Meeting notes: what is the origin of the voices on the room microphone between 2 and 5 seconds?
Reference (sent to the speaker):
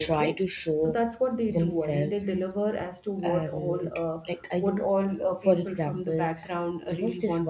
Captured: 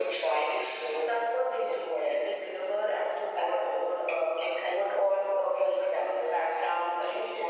echo only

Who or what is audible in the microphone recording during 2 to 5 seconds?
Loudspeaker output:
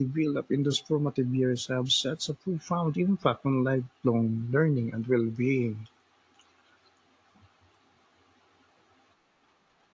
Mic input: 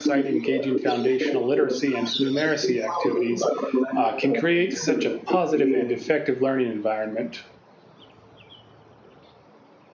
both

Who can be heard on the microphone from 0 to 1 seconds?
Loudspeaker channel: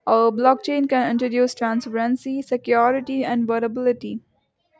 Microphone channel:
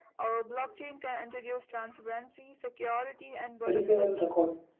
echo only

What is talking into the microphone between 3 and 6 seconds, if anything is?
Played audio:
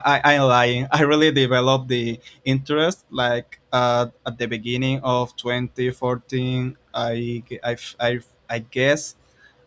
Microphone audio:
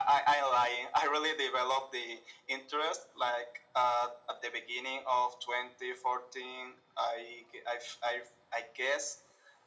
echo only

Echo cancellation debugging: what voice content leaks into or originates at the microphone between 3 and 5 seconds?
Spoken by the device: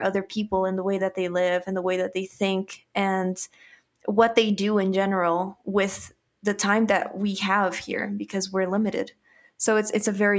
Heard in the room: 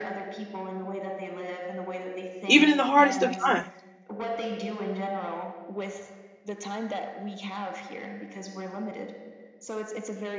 both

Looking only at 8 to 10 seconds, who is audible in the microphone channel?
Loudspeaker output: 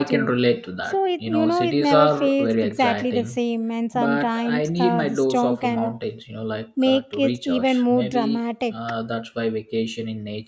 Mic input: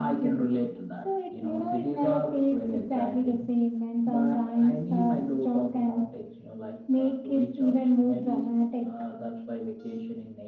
echo only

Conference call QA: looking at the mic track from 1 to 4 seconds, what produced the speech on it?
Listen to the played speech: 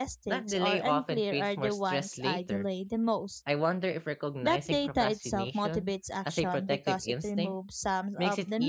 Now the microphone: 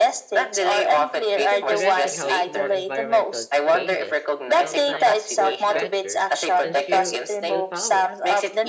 both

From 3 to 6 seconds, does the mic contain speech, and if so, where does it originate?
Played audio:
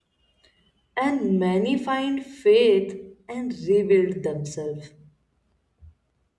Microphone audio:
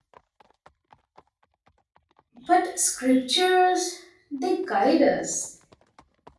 user only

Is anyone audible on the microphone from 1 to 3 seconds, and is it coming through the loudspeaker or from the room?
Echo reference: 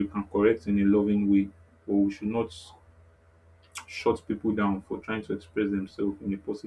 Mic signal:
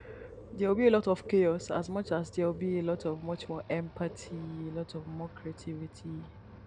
user only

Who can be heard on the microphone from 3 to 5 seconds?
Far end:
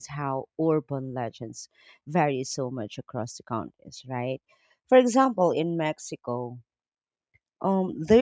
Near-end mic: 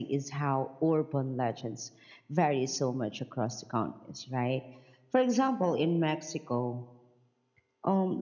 echo only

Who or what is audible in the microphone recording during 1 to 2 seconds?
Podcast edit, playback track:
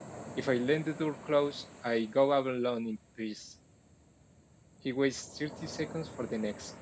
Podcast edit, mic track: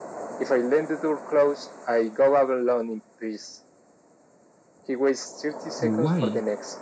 echo only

